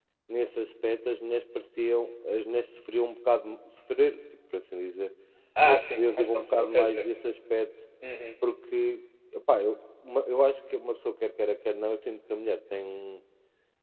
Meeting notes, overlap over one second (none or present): present